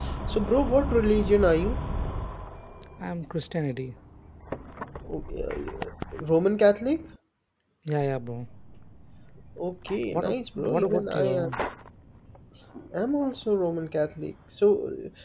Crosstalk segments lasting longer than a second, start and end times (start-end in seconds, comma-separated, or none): 10.1-11.5